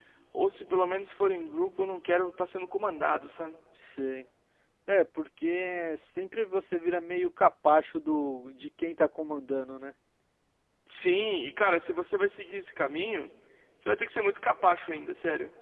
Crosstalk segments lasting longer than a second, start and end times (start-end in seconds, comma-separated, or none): none